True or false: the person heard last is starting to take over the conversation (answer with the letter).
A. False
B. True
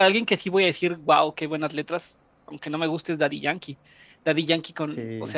A